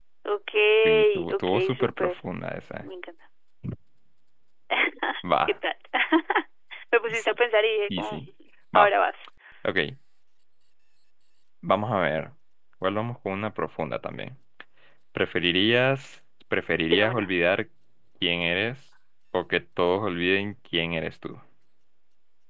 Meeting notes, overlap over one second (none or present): present